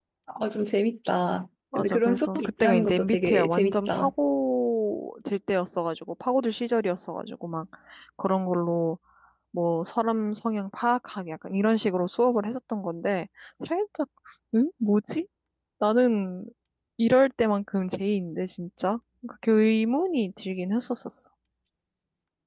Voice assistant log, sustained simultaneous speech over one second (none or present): present